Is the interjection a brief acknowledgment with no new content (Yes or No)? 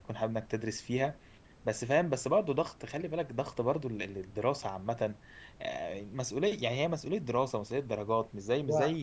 Yes